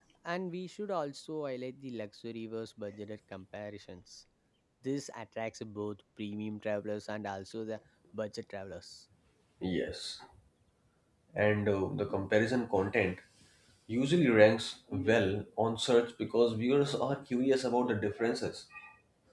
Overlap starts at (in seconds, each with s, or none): none